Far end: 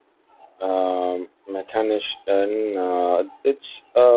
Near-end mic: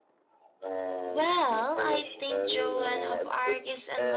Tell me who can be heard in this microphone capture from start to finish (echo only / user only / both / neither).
both